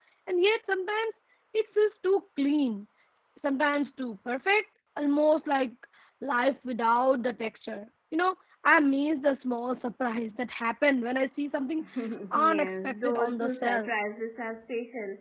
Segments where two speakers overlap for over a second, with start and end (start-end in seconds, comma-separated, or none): 12.4-13.9